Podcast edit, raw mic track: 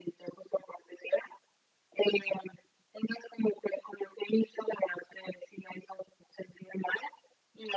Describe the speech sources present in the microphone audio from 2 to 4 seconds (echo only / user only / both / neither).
echo only